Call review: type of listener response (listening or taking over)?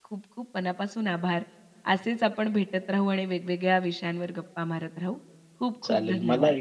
taking over